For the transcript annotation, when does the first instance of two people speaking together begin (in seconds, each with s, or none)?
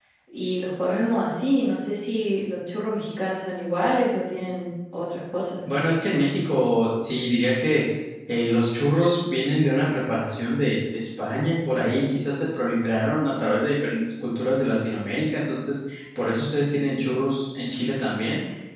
none